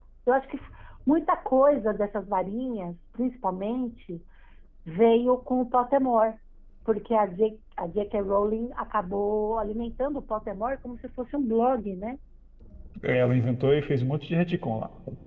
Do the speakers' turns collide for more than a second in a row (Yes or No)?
No